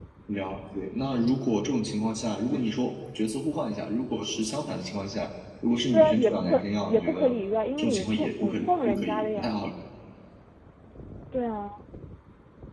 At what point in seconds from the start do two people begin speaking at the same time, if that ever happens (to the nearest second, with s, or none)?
6 s